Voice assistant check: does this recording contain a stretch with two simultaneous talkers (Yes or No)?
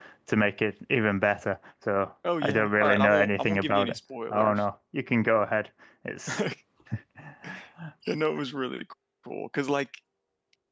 Yes